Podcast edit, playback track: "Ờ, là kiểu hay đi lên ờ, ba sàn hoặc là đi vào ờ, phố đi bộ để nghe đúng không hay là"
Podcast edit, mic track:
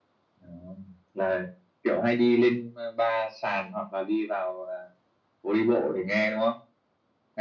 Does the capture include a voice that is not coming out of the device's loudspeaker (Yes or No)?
No